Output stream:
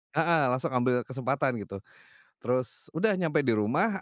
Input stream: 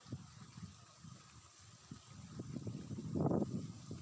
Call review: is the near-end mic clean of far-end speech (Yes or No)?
Yes